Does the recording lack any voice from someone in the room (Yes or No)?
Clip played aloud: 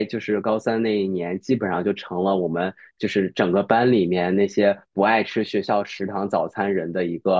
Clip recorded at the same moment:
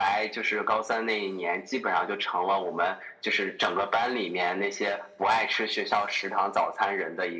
Yes